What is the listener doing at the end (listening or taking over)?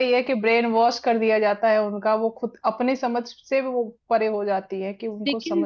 taking over